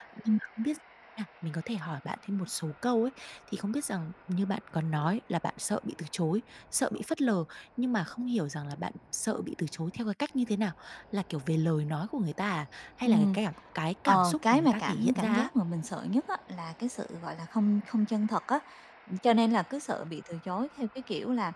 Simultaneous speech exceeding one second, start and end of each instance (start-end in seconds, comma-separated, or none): 14.1-15.5